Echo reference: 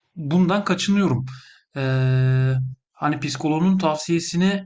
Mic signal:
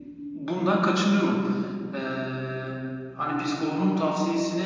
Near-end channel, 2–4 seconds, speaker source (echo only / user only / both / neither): echo only